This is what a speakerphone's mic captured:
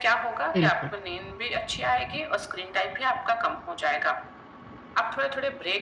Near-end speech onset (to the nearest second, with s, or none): 1 s